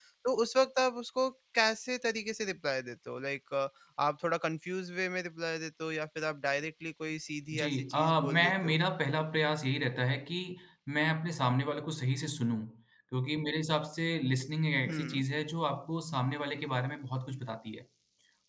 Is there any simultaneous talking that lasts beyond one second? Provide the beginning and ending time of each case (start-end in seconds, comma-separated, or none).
7.6-8.8